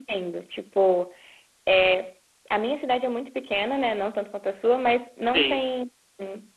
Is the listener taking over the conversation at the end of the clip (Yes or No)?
No